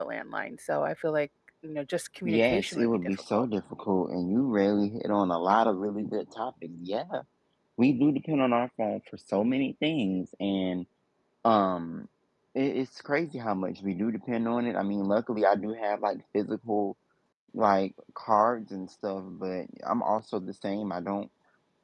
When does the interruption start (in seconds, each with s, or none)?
2.2 s